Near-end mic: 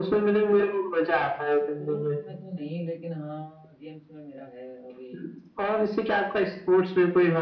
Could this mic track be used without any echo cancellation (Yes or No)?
No